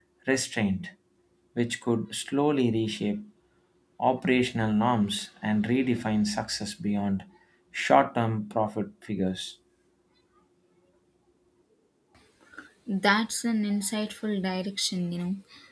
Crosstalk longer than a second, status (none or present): none